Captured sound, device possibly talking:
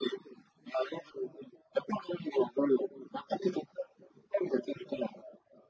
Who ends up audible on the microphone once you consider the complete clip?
echo only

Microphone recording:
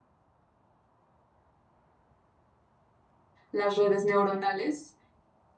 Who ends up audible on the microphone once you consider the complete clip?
user only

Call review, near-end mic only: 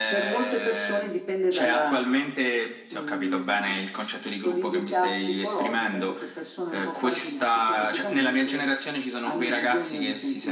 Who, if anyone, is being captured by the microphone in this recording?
echo only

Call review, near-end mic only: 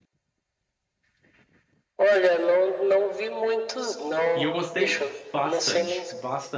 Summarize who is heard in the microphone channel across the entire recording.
both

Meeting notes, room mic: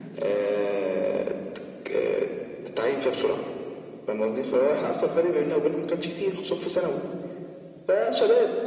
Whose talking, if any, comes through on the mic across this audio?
echo only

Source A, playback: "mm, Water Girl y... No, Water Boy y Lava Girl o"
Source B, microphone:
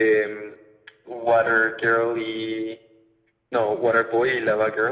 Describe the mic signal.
echo only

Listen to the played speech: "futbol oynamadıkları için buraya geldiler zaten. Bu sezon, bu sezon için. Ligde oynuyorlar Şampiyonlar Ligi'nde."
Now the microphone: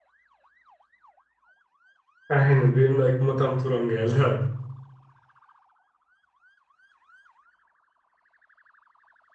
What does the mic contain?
user only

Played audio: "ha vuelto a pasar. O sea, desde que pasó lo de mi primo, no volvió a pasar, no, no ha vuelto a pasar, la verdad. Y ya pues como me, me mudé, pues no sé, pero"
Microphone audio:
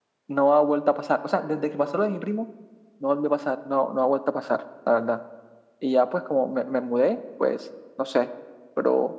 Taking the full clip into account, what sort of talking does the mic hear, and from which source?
echo only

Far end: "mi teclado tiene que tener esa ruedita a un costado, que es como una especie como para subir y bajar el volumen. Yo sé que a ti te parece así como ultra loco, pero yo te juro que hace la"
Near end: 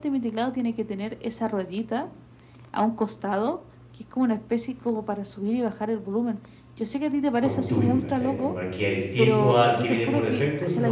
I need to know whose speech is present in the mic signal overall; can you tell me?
both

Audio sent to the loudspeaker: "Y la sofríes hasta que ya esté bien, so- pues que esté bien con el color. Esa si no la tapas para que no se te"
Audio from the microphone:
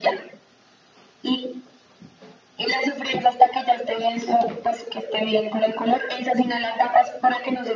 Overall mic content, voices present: echo only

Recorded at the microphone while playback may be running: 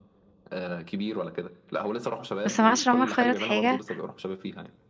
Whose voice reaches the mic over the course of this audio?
both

